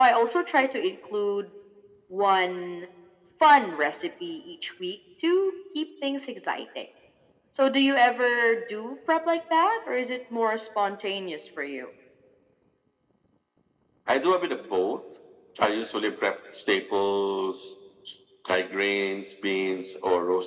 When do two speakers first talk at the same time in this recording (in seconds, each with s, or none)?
none